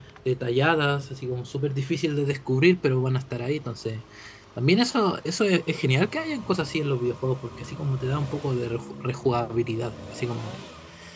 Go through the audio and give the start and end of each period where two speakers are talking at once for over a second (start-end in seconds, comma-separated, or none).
none